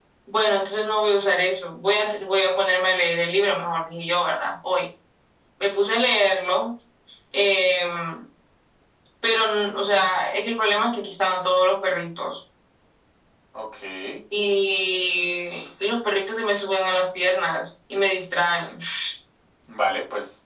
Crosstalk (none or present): none